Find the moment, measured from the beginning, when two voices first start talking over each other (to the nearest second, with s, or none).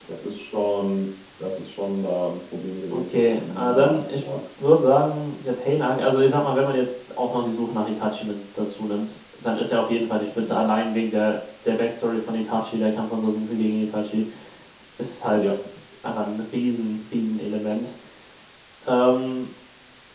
3 s